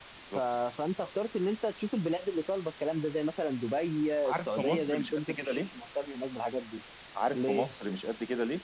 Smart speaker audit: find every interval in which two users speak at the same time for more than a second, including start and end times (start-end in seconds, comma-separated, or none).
4.2-5.6